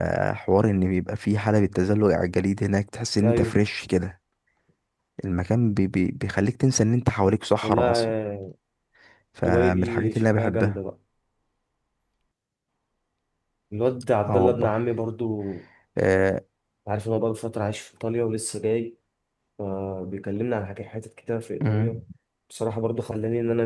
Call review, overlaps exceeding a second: present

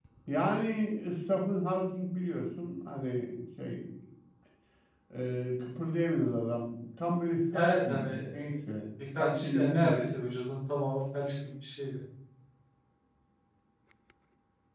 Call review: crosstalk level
present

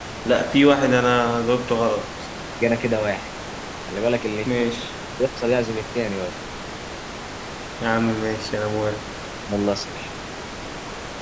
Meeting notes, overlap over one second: none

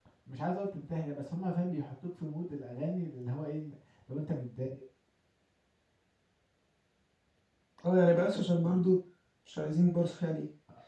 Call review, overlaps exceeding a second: none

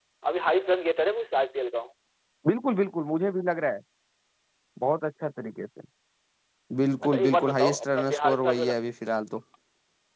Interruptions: present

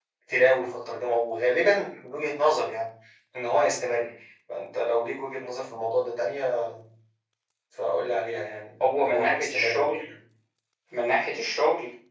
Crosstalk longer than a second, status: present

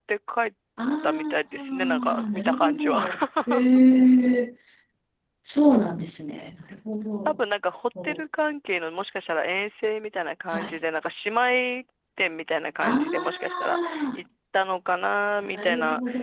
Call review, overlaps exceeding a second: present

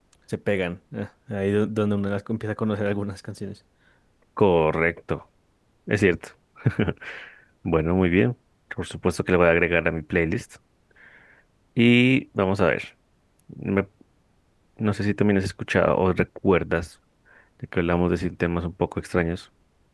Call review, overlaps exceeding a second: none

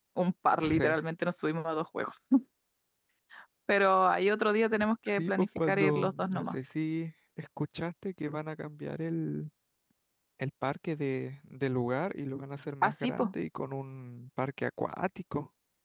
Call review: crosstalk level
present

